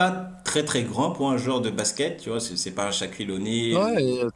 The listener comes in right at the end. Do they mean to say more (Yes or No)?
Yes